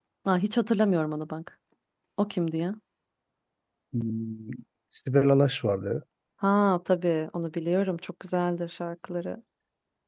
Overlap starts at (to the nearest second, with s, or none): none